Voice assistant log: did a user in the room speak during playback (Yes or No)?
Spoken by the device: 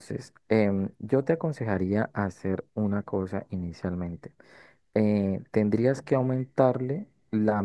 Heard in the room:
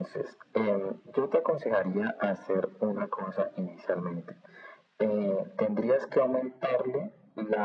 No